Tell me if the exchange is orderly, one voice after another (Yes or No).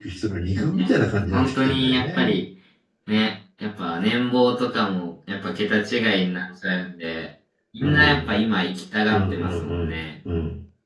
No